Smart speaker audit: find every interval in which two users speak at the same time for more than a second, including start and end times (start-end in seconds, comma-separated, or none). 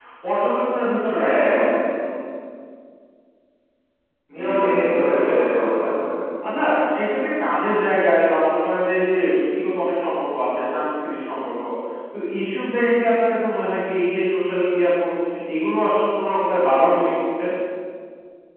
4.4-5.9